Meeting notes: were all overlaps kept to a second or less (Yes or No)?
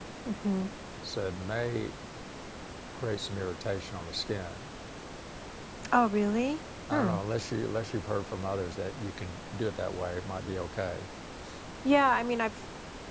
Yes